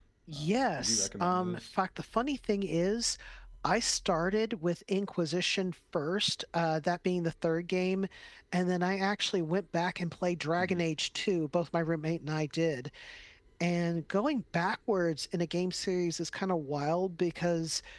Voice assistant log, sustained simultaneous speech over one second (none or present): present